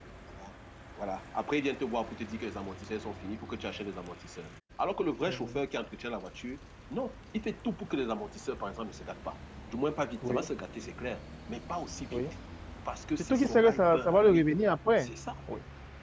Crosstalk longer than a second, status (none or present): present